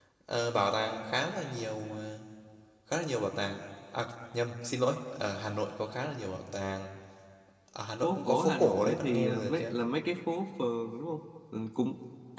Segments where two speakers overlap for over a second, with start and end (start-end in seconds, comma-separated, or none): 8.0-9.7